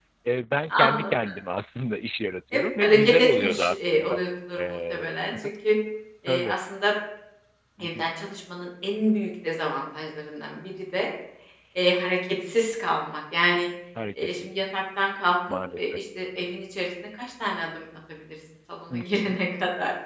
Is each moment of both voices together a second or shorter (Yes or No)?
No